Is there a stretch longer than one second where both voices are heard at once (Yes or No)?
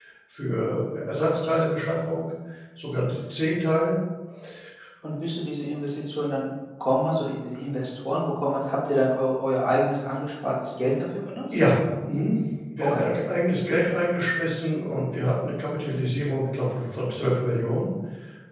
No